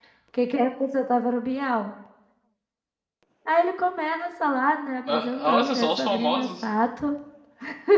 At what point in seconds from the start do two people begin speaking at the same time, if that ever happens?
5.0 s

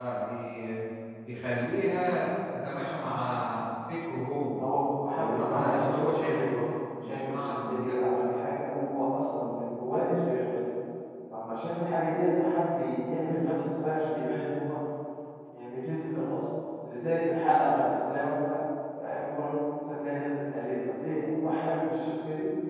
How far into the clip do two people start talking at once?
5.1 s

